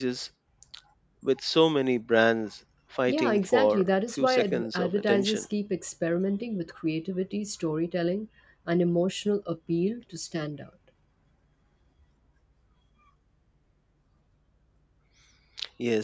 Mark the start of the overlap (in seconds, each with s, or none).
3.1 s